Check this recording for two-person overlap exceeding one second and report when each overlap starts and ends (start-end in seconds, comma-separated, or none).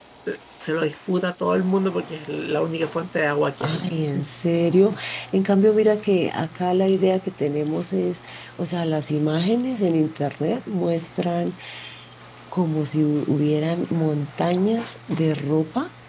none